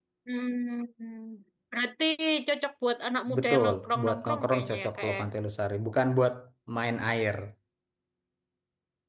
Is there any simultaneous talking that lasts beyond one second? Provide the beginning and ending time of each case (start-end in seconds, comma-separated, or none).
3.4-5.2